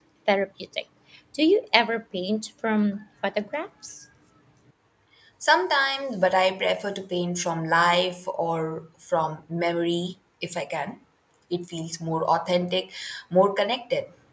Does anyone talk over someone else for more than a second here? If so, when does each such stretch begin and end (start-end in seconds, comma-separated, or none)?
none